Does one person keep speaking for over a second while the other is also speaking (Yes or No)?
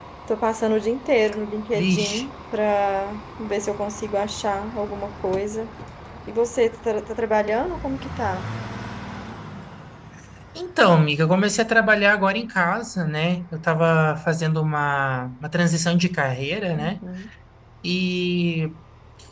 No